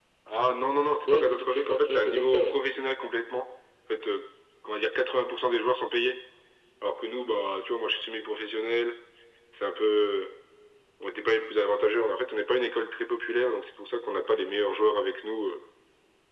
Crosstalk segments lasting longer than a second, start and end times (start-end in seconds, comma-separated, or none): 1.1-2.6